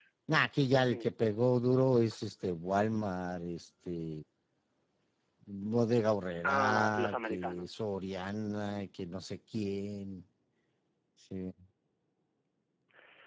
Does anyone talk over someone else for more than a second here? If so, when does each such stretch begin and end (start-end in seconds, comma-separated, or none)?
6.4-7.6